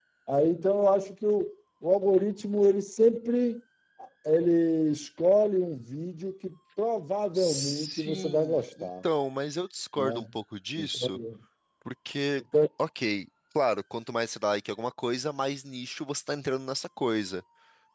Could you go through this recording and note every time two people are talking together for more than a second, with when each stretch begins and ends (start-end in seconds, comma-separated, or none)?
7.3-8.9